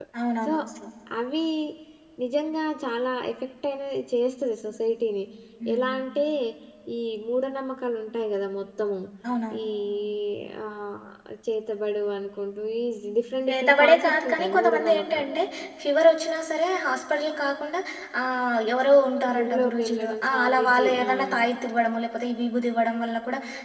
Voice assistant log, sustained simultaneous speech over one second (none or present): present